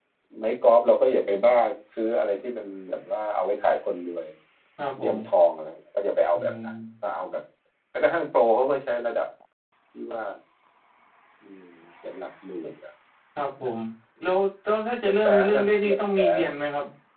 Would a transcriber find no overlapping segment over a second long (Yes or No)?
No